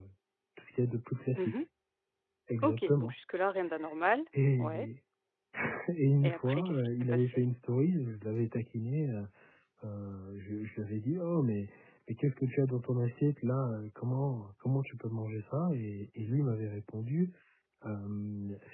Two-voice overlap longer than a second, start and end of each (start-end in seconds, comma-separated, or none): 6.2-7.4